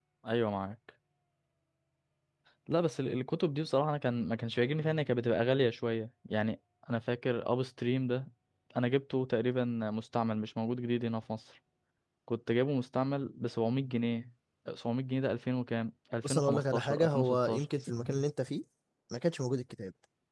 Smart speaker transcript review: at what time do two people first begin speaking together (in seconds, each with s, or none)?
16.2 s